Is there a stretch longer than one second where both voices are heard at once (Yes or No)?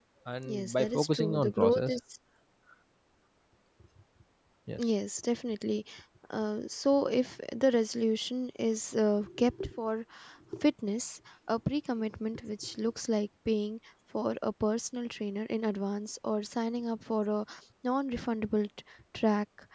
Yes